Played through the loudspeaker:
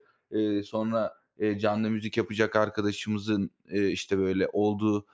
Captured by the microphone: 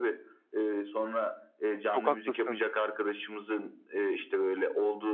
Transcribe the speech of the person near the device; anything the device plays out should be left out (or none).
Çok haklısın.